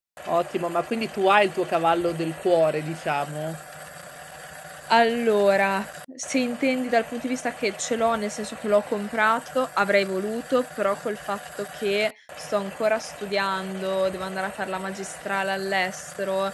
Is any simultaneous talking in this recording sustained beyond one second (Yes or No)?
No